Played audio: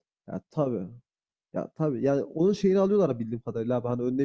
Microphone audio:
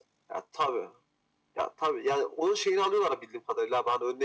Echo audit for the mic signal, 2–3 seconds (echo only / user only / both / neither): echo only